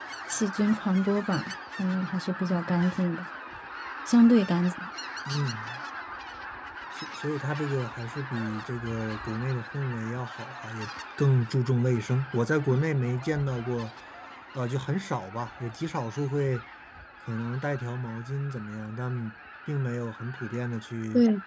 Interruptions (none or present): none